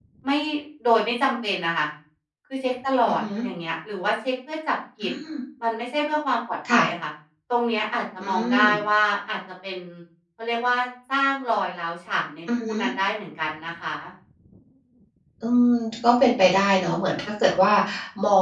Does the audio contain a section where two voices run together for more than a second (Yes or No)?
No